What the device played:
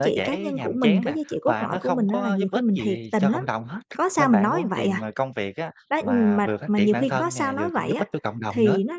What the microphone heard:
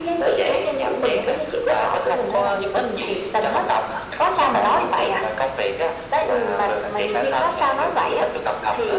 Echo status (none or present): present